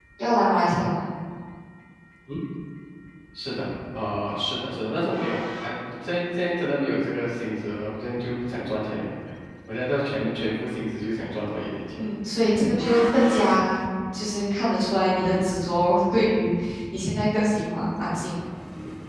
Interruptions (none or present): none